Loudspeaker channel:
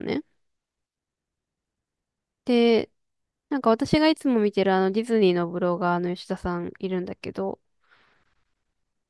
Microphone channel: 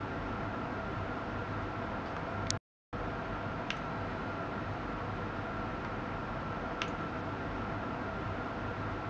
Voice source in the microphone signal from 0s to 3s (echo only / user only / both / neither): neither